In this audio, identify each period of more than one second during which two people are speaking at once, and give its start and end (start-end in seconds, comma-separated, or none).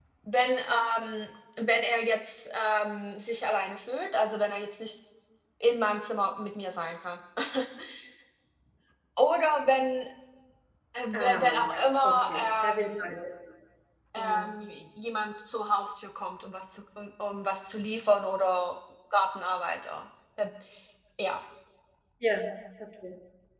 11.1-13.0